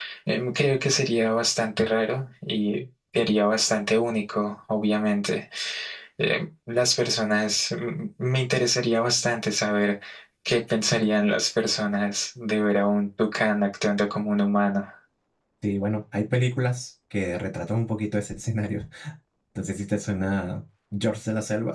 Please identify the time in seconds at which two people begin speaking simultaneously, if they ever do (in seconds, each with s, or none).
none